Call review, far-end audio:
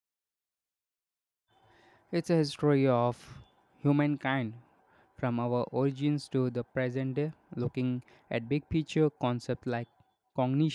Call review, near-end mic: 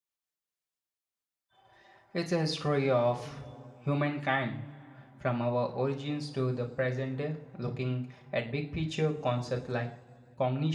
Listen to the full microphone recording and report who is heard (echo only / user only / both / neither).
echo only